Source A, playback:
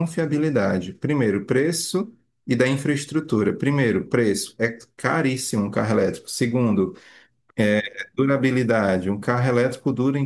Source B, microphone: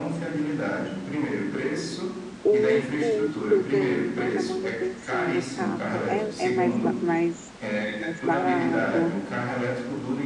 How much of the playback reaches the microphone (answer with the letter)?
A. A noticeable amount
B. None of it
A